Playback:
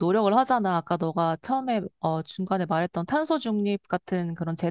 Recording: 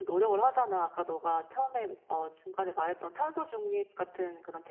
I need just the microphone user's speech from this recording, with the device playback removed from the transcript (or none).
none